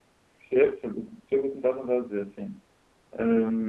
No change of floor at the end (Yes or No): No